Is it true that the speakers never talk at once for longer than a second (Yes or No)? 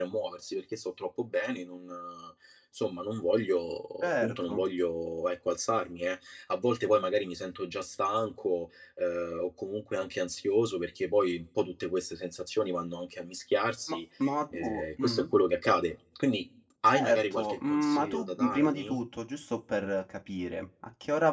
No